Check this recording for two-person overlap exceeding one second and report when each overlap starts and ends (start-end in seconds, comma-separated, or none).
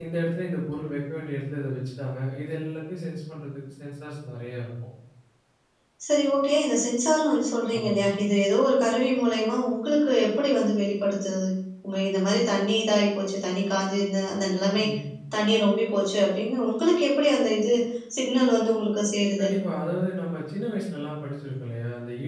none